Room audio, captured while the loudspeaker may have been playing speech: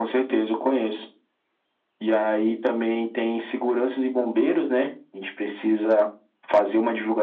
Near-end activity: none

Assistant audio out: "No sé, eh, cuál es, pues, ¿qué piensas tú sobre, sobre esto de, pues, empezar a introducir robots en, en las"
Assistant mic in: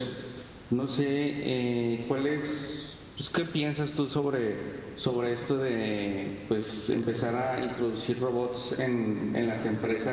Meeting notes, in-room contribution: none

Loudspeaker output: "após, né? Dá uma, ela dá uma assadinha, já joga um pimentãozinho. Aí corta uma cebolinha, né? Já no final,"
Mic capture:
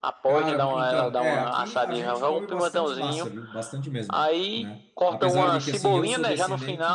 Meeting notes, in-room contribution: present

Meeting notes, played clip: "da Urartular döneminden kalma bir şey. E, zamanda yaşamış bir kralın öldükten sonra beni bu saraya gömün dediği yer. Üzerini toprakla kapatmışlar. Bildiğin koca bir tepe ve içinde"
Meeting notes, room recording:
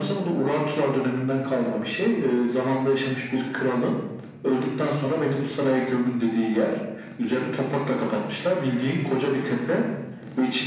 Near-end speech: none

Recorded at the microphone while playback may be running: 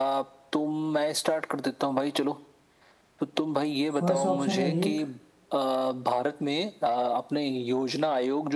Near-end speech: present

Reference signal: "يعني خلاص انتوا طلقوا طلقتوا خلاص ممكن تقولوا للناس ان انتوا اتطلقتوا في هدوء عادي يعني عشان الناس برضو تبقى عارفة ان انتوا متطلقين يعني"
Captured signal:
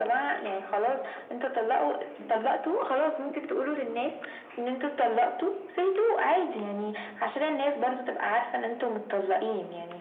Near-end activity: none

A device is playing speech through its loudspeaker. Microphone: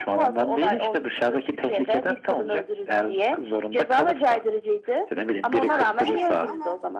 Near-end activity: present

